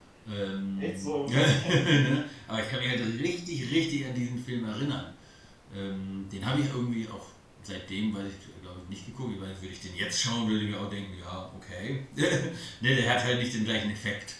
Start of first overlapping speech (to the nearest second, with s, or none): 1 s